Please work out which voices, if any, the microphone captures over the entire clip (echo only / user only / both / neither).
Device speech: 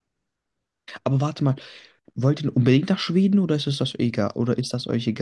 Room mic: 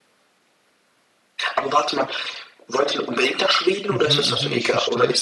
both